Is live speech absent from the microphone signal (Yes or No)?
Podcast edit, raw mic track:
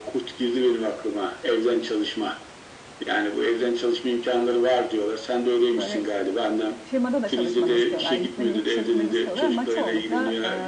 No